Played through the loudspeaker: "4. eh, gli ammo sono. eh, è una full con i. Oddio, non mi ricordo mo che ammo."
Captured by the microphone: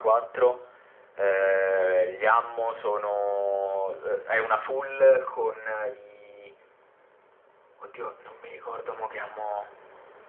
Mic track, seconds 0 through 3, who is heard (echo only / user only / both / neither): echo only